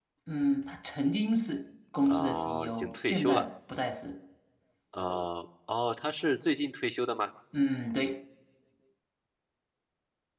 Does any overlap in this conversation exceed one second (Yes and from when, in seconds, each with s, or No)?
Yes, from 2.1 s